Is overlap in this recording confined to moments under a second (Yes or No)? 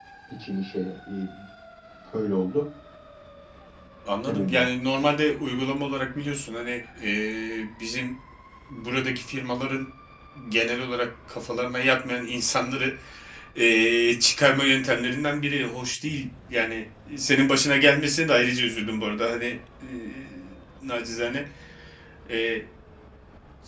Yes